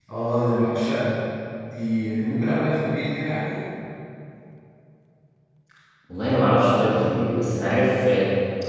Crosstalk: none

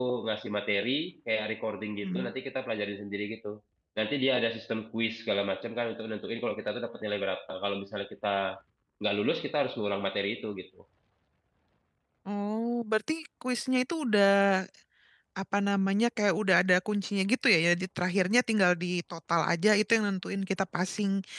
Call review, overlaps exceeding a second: none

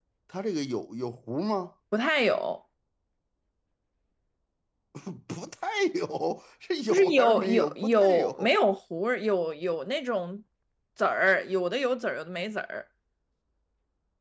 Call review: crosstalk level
present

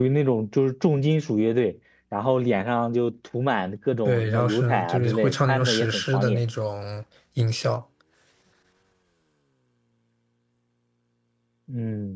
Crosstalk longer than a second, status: present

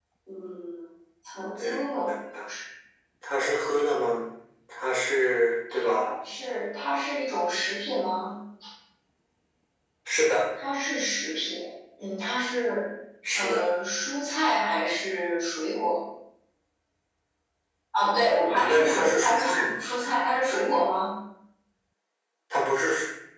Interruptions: present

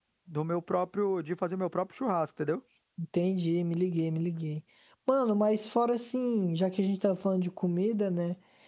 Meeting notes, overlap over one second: none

